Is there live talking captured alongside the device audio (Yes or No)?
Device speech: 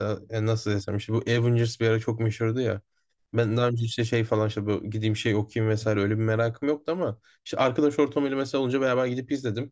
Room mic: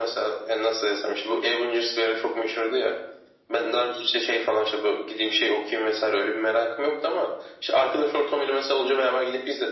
No